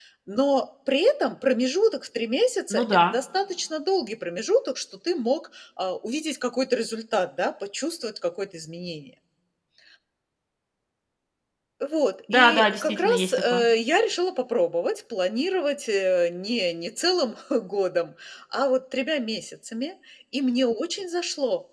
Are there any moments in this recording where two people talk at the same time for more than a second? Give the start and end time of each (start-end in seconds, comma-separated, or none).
12.3-13.6